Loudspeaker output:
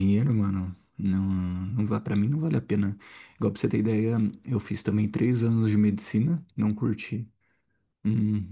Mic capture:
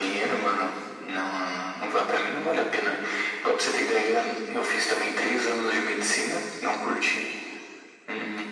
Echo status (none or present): present